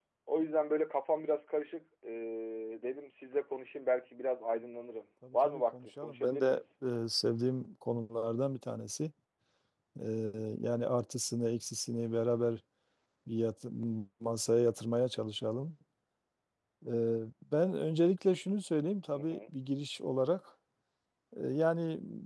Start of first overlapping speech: 5.3 s

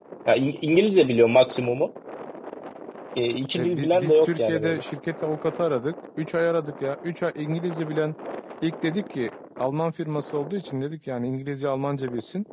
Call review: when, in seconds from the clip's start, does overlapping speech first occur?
3.5 s

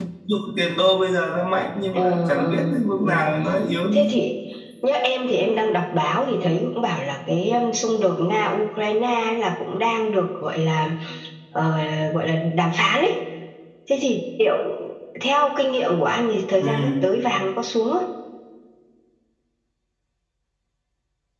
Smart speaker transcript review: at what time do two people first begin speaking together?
1.9 s

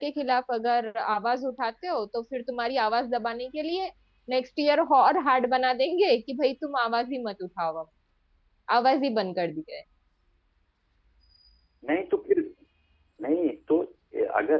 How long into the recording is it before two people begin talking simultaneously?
none

